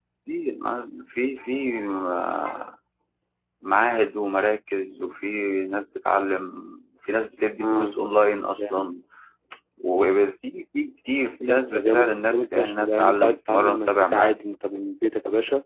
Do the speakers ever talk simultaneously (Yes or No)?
Yes